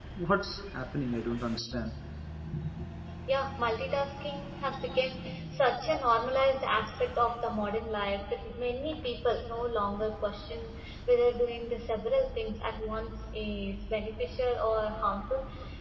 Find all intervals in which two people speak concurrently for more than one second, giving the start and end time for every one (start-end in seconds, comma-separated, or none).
none